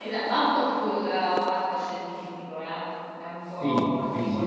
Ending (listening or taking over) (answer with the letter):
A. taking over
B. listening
A